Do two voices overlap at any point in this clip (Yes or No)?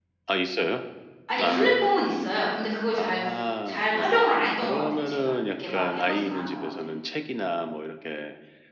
Yes